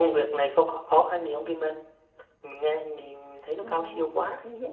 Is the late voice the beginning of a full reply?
Yes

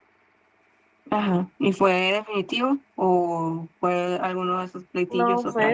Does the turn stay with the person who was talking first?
No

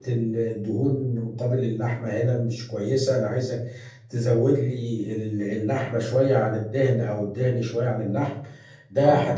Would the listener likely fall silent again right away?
Yes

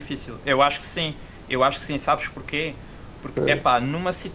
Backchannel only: Yes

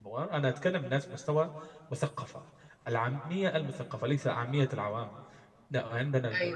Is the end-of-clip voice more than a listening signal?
No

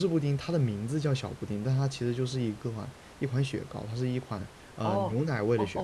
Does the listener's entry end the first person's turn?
Yes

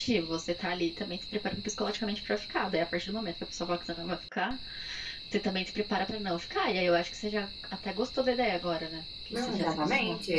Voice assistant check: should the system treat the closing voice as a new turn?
Yes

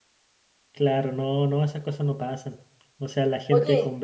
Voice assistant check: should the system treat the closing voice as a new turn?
No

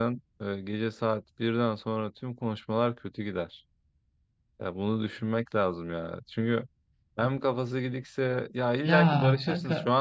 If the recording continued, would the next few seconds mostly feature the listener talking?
No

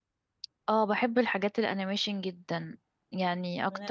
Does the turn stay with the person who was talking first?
Yes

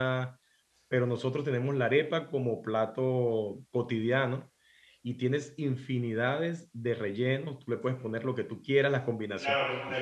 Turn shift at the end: Yes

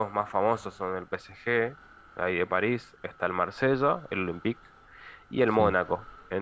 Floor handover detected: No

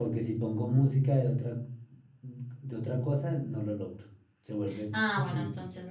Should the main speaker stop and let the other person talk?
Yes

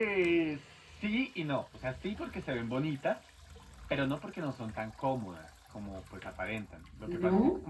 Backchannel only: Yes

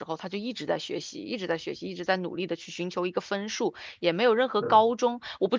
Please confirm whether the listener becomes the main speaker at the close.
No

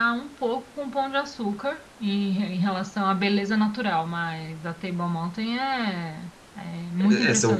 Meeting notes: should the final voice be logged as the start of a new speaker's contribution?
Yes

